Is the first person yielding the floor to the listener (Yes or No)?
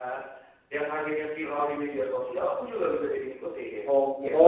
Yes